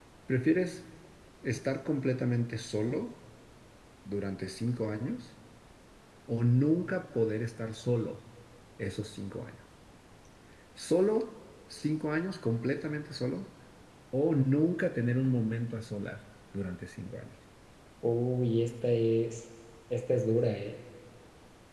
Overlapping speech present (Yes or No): No